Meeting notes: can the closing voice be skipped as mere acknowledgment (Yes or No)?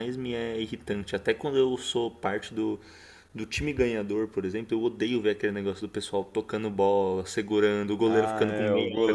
No